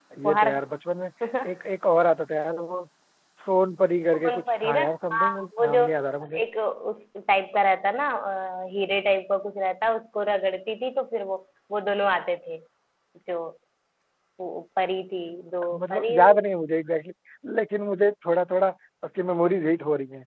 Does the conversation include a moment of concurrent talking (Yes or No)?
Yes